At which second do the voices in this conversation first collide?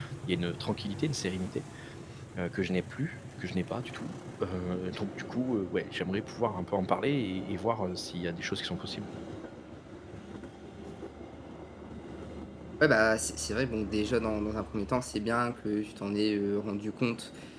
none

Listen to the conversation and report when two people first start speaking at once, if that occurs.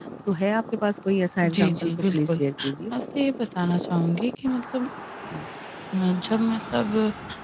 1 s

